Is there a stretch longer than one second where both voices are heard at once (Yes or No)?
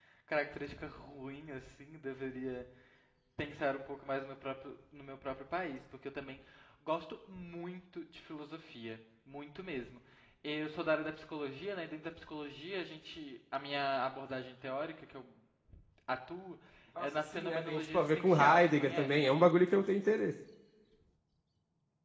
Yes